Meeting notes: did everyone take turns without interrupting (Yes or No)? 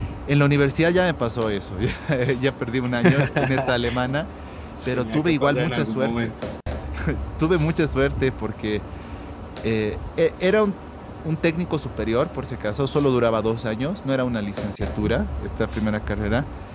No